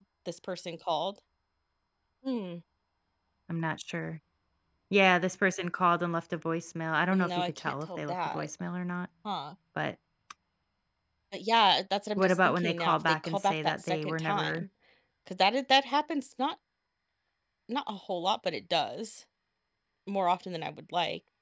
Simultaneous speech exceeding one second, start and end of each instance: 7.1-8.5, 12.2-14.6

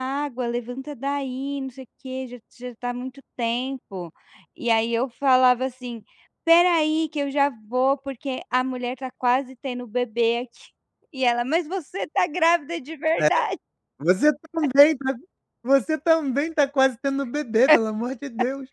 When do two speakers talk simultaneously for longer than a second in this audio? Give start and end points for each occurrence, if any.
none

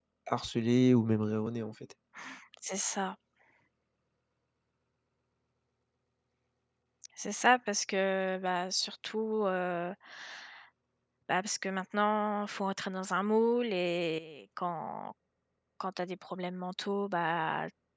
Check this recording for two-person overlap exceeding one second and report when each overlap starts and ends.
none

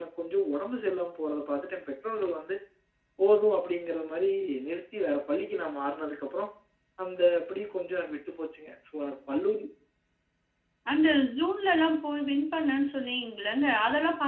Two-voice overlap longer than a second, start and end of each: none

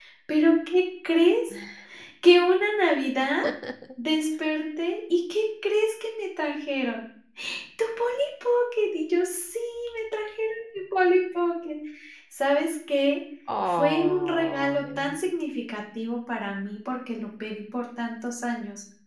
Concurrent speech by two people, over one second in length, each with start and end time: 13.6-15.2

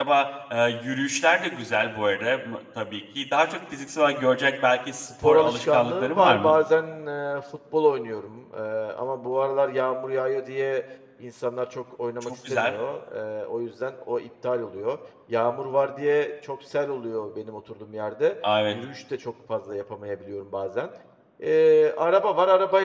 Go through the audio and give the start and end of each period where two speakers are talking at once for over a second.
5.0-6.5

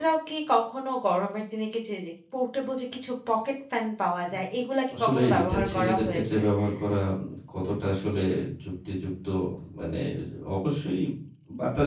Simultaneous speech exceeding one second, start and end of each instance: 4.9-6.4

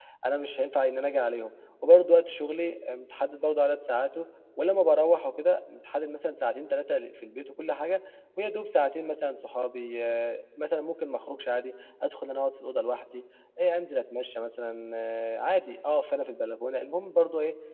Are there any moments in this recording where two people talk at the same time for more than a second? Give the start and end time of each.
none

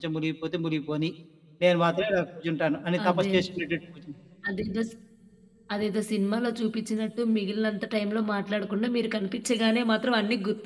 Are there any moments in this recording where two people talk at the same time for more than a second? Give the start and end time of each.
none

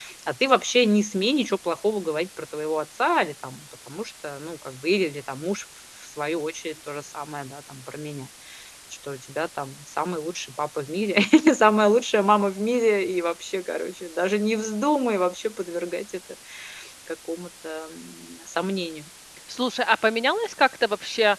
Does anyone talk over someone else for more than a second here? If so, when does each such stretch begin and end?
none

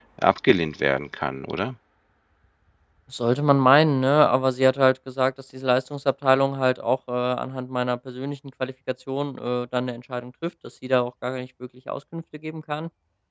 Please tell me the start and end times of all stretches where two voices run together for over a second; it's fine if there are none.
none

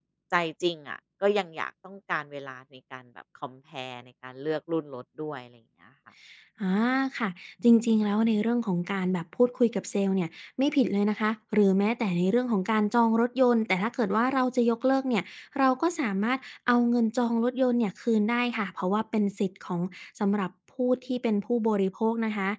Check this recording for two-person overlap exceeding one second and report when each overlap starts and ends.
none

